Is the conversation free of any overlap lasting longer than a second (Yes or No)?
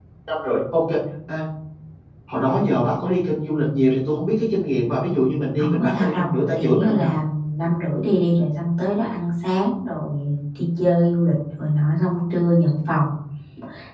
No